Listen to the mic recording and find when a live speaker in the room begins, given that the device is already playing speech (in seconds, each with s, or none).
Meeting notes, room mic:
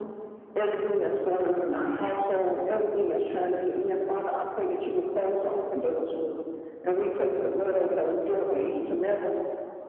none